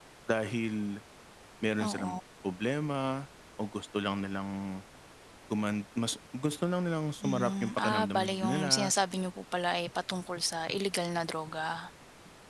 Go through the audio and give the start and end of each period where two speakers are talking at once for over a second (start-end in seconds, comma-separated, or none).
7.2-8.9